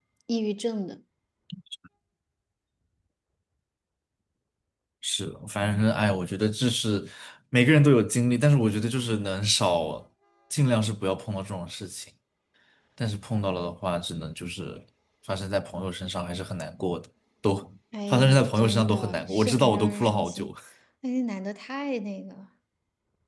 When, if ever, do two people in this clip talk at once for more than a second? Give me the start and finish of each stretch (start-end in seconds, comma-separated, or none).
18.1-20.5